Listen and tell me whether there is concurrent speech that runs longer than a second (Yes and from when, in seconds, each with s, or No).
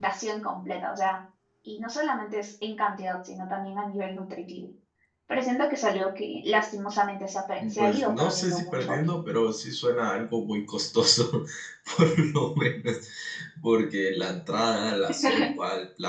Yes, from 7.7 s